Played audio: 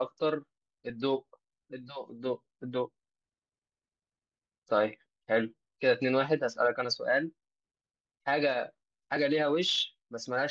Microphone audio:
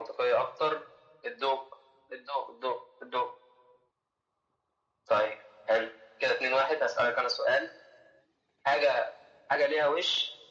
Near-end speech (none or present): none